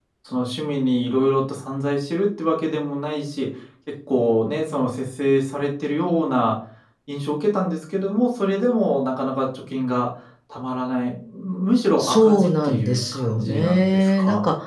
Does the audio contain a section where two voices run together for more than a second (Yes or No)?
Yes